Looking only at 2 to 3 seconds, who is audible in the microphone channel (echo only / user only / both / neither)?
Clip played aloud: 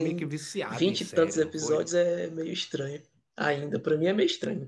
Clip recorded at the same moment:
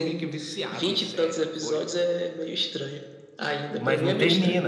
echo only